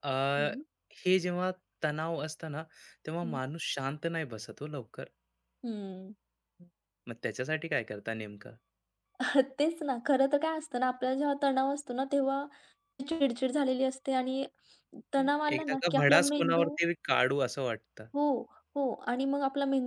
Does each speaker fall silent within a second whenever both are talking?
No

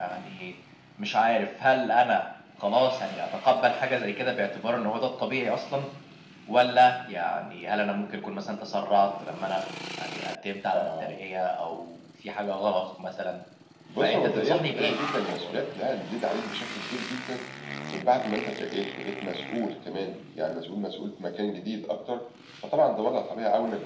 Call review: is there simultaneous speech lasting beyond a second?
Yes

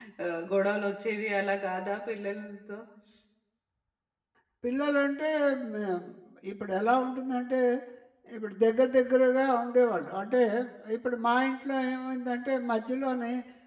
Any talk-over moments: No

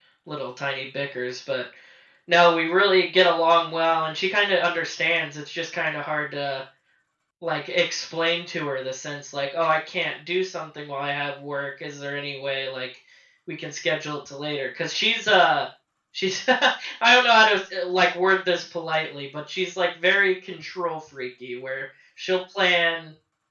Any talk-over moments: No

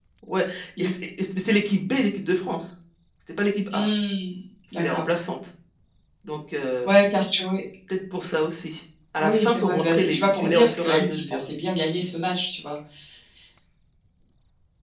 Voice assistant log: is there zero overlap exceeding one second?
No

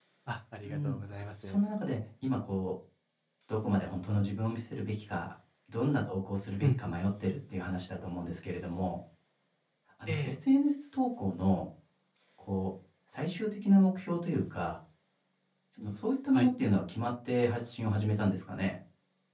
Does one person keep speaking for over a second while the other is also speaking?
No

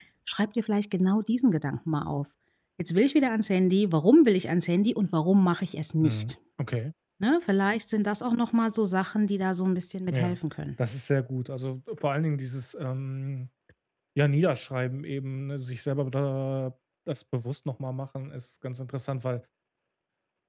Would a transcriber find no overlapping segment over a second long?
Yes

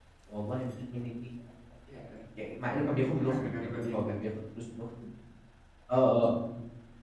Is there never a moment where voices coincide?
No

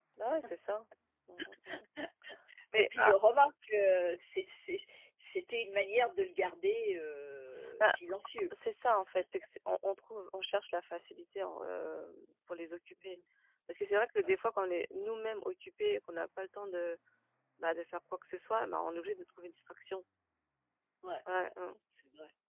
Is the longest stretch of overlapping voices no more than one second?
Yes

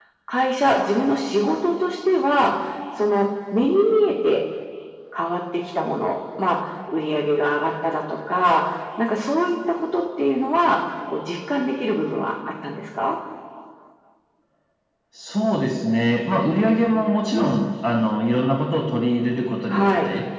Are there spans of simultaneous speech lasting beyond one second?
No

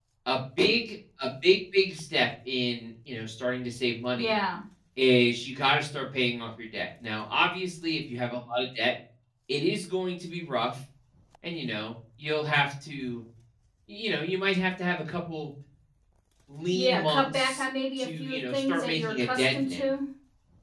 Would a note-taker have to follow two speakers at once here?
Yes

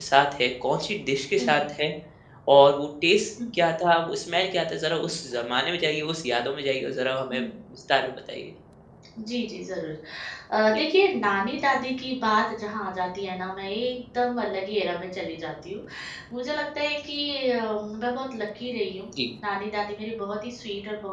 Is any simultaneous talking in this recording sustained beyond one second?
No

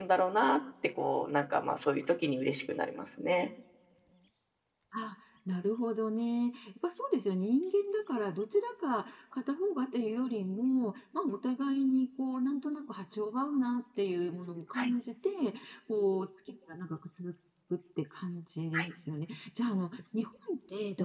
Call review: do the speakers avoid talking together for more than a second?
Yes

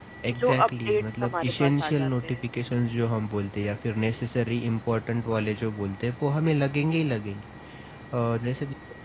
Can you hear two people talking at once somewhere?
Yes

